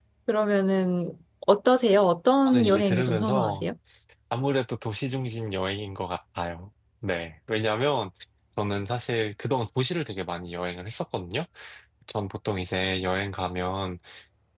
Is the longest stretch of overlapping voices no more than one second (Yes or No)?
No